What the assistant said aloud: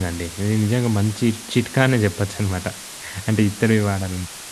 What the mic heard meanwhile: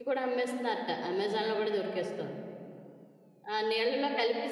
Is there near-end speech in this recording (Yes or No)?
Yes